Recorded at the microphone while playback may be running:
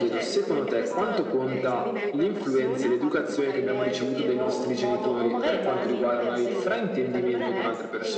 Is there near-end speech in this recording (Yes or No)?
Yes